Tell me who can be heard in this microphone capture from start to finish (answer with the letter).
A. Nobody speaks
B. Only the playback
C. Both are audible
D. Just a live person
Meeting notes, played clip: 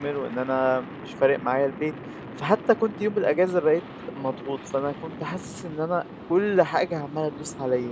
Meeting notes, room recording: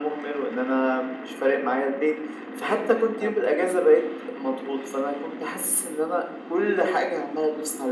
C